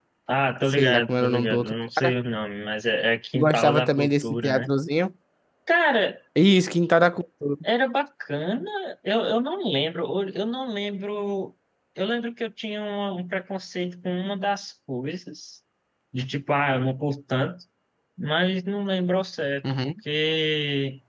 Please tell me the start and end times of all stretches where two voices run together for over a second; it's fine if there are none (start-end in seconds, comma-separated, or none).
0.7-2.1, 3.3-4.7